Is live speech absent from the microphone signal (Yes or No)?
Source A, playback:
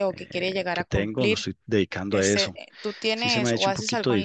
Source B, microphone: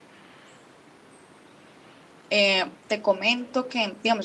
No